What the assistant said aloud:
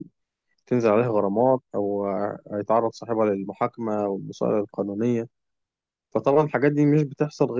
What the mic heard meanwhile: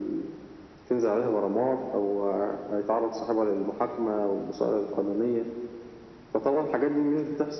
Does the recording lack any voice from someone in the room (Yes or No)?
Yes